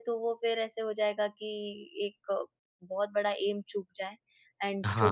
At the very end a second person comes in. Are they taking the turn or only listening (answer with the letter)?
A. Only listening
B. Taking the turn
A